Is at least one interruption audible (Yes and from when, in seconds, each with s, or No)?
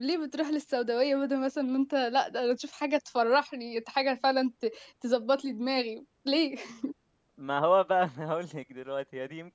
No